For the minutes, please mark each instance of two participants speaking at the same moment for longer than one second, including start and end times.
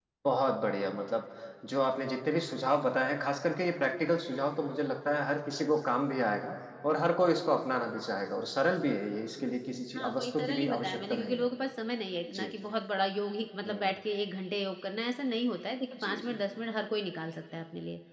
10.0-11.5

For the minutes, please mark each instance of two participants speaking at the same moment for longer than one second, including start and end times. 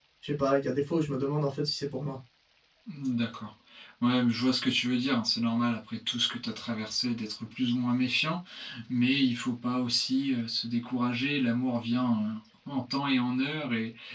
none

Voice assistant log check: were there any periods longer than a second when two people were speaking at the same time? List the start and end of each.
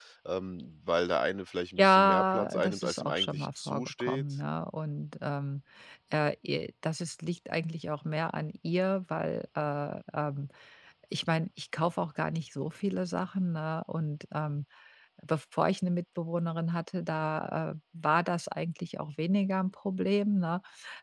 1.8-4.2

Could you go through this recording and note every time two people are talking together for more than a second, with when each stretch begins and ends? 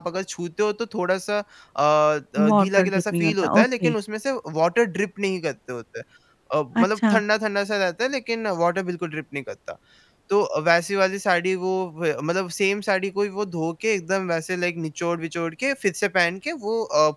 2.5-3.9

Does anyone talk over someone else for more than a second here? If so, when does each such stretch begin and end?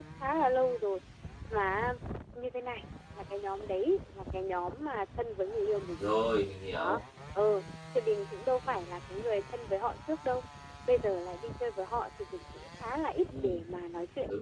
none

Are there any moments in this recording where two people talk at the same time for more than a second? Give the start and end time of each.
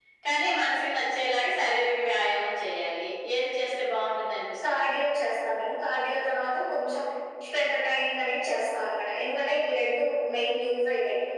none

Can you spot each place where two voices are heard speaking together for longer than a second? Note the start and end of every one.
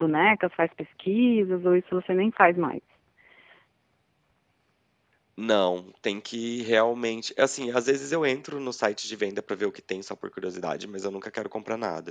none

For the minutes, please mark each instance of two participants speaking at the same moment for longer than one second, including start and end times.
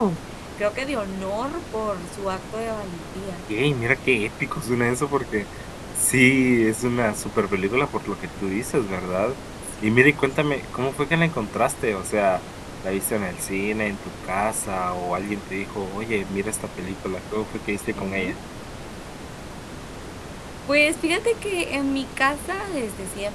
none

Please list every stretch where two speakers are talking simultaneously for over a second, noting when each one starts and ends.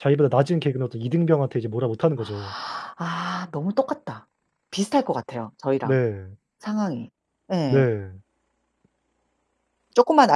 none

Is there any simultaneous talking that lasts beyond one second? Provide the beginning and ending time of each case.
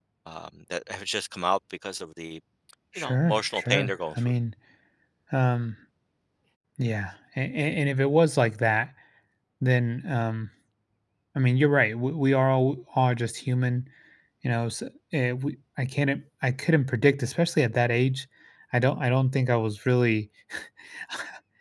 3.0-4.3

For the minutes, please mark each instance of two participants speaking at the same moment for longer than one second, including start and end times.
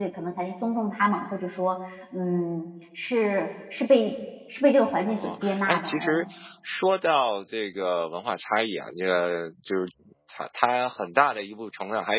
5.1-6.3

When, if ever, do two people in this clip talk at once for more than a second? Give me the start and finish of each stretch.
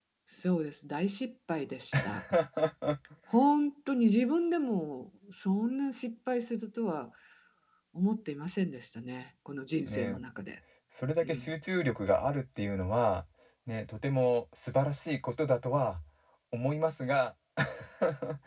none

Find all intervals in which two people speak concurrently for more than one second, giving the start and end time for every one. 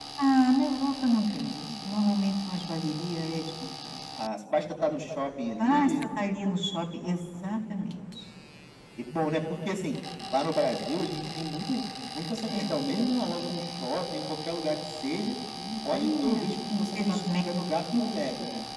15.9-17.2

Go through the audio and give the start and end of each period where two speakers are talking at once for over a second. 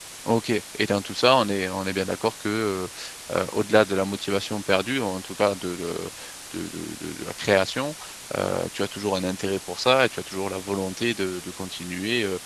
none

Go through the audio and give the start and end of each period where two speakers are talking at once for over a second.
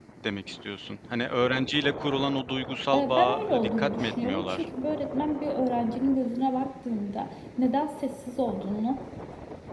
2.9-4.7

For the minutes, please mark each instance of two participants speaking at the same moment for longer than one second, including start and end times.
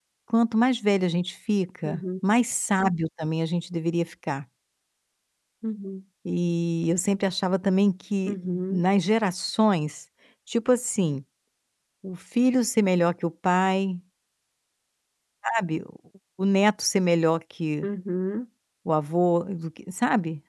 none

